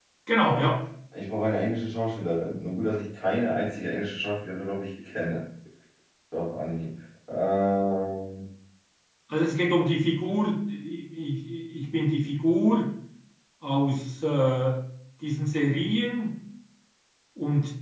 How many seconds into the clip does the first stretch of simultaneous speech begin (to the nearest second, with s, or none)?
none